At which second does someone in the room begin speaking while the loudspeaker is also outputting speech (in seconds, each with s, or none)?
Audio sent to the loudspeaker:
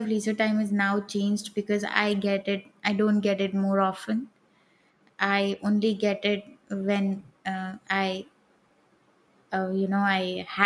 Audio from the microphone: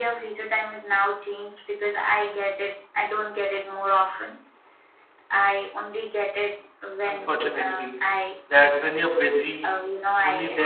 7.0 s